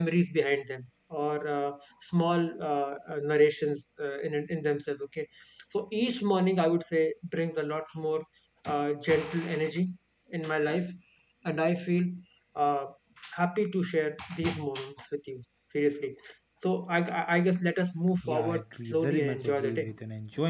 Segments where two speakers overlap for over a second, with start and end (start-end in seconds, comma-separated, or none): 18.2-19.9